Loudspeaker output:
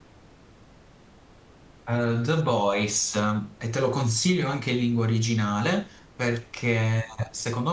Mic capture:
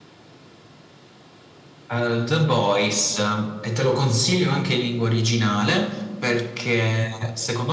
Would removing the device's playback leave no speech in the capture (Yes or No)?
Yes